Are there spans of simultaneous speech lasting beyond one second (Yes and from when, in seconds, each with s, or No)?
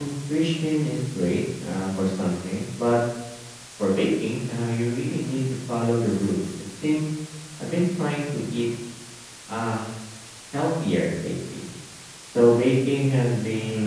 No